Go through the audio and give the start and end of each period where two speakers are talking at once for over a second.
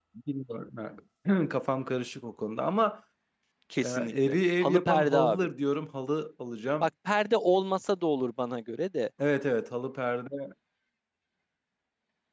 3.8-5.5

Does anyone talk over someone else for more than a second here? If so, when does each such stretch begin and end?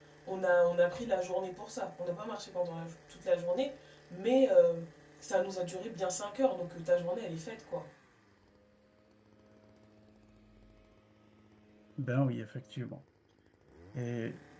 none

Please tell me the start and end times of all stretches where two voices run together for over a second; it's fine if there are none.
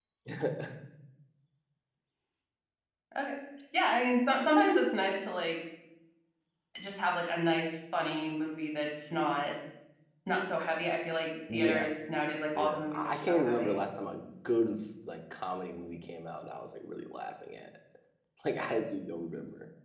12.6-13.8

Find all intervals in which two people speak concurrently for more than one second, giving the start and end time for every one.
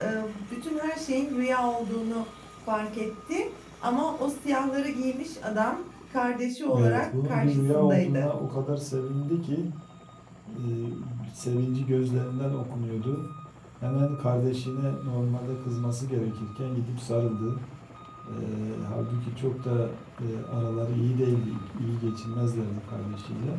6.8-8.3

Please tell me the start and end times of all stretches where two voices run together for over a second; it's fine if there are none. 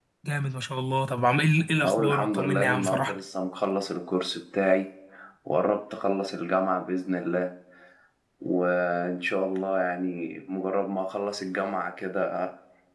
1.8-3.2

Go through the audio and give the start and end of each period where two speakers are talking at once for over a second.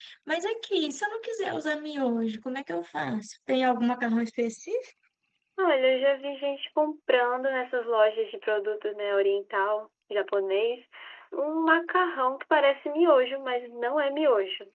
none

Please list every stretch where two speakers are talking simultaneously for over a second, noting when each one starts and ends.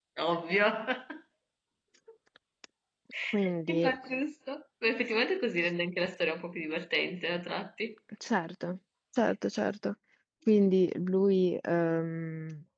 none

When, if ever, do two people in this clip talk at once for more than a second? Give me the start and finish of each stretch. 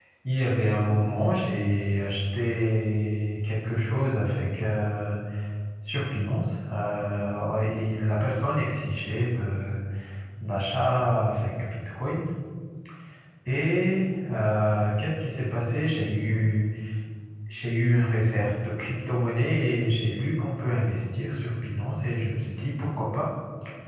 none

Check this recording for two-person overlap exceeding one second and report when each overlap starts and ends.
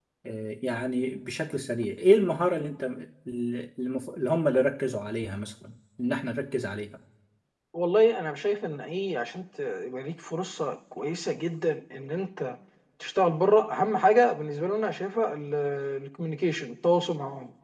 none

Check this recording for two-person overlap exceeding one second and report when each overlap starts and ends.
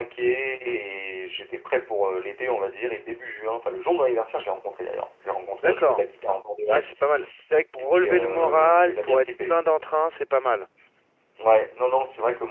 7.9-9.5

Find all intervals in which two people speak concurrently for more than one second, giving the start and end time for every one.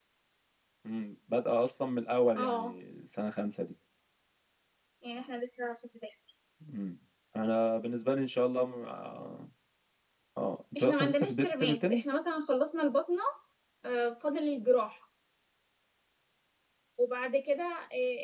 10.8-12.0

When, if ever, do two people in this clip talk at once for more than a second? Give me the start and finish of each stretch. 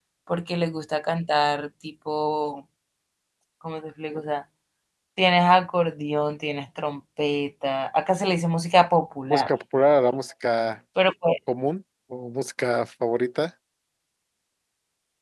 none

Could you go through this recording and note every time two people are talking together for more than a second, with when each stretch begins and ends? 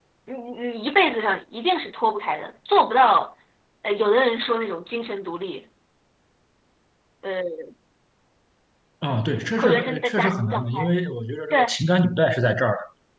9.6-10.9

